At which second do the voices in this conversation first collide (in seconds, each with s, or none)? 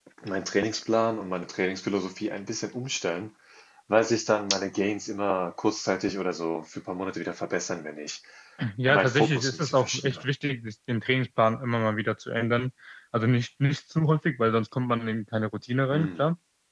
8.9 s